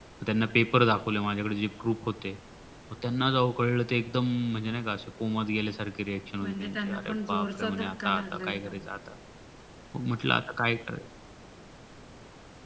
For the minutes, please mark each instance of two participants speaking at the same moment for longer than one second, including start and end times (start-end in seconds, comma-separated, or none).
6.4-8.8